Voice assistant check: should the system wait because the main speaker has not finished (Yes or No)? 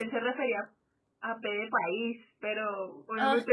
Yes